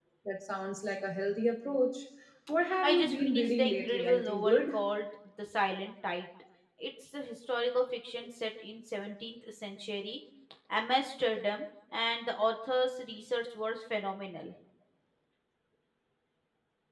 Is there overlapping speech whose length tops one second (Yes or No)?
Yes